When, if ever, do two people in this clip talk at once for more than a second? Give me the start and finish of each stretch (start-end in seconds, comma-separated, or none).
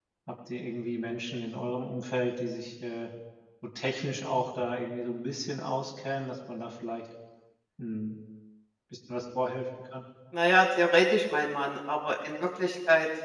none